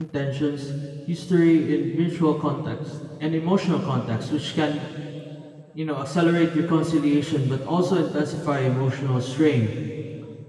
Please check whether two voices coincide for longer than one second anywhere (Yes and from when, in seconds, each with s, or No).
No